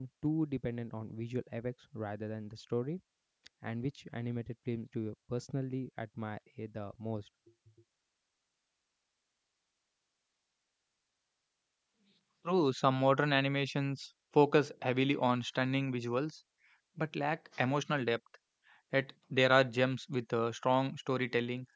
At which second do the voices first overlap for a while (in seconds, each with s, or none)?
none